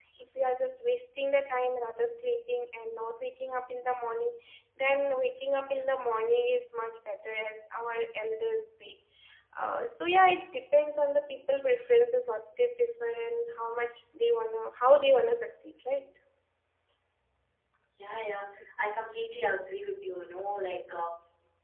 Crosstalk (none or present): none